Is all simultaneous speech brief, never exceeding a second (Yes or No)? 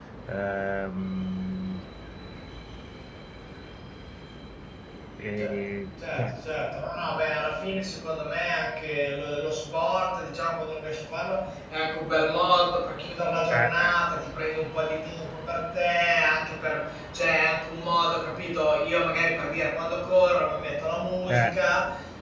Yes